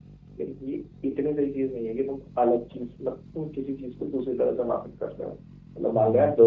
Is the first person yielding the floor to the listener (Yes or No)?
Yes